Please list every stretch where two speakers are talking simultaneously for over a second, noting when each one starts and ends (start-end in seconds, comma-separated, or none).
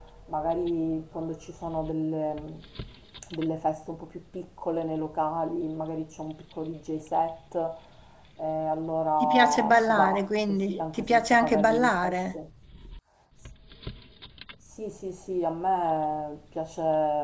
9.2-12.2